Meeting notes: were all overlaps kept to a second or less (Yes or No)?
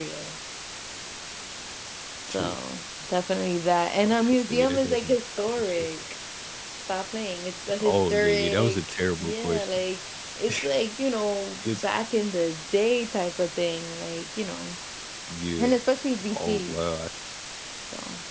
No